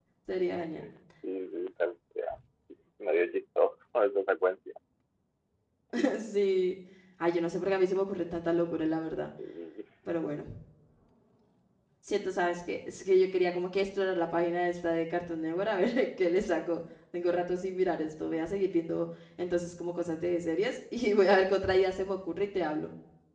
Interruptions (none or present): none